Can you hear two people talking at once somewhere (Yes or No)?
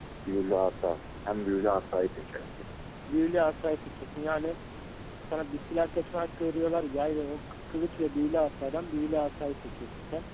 No